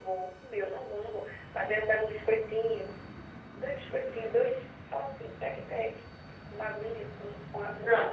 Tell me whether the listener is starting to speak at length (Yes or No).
Yes